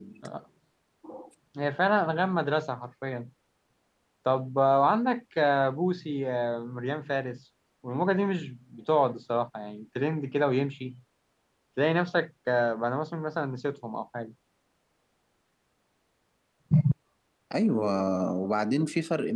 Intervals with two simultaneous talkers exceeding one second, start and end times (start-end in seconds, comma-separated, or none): none